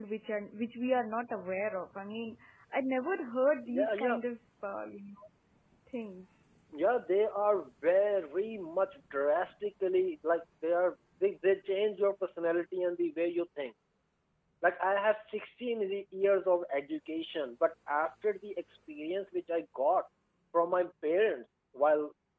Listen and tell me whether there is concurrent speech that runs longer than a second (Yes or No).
No